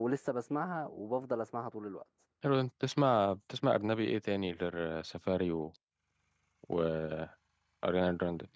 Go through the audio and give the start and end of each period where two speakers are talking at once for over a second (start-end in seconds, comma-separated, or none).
none